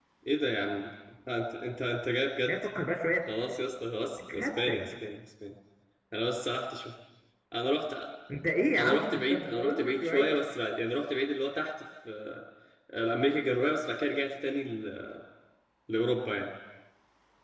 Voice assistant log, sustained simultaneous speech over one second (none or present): present